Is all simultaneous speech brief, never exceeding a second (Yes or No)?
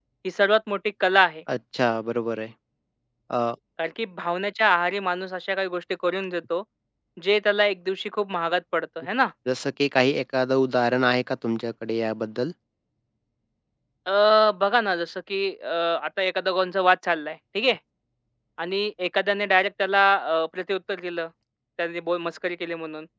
Yes